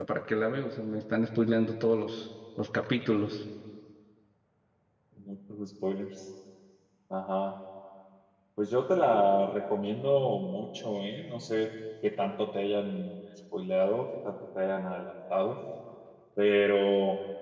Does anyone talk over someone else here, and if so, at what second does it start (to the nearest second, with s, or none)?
none